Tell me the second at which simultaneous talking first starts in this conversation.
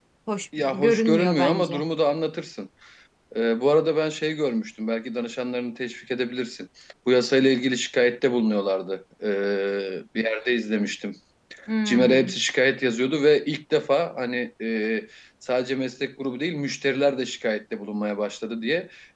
0.6 s

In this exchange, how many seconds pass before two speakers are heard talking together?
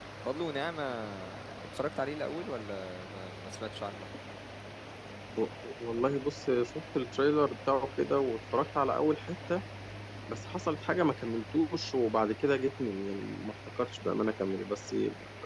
none

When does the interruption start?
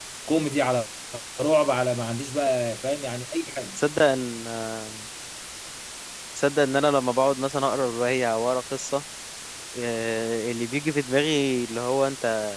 none

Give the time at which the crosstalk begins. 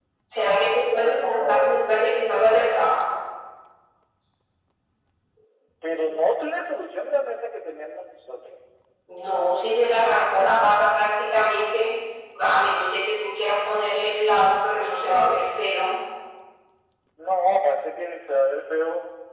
1.0 s

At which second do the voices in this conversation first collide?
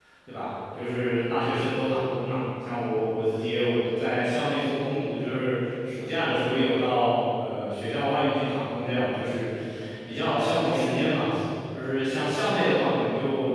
none

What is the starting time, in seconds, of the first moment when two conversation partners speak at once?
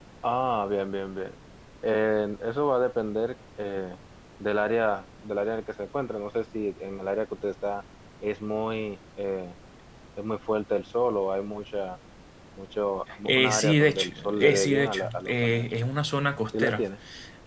13.2 s

